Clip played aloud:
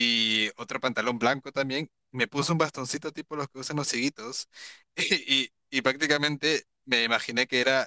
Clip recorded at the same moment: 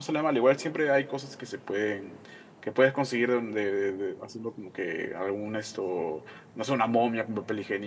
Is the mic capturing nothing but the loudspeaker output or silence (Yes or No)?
No